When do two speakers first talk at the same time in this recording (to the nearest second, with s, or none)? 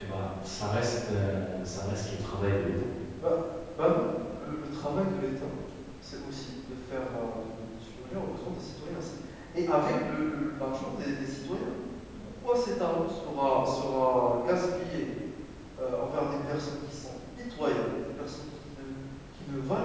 none